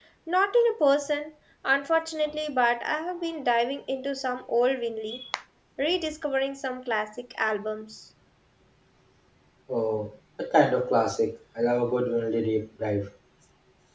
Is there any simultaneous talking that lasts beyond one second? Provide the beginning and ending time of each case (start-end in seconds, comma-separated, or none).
none